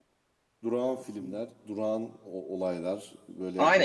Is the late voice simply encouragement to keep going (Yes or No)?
No